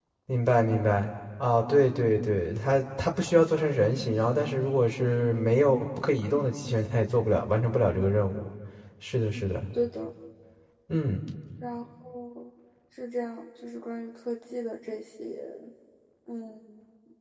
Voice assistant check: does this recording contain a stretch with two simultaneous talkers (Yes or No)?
No